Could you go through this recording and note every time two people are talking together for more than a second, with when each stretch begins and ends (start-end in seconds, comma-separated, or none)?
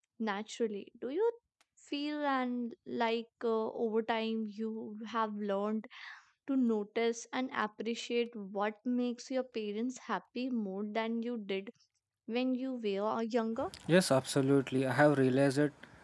none